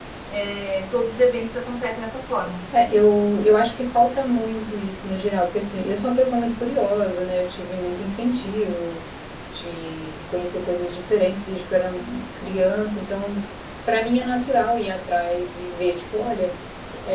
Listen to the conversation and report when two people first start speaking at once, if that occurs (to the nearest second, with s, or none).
none